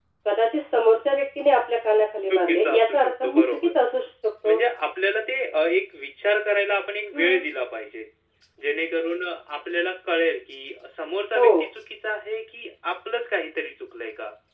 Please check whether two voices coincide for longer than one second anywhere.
Yes, from 2.3 s

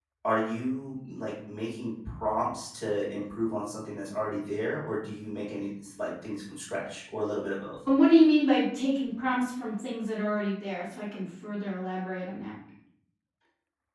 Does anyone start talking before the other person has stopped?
No

